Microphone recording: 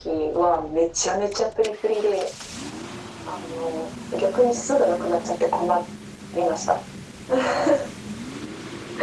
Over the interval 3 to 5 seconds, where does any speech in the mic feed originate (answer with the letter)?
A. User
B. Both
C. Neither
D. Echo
D